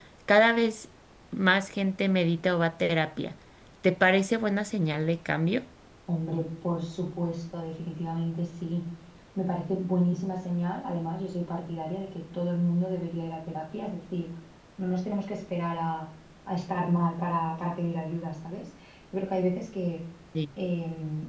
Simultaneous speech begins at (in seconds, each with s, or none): none